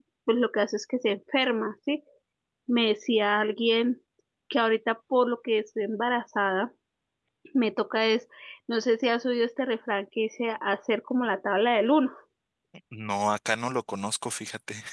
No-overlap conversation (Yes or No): Yes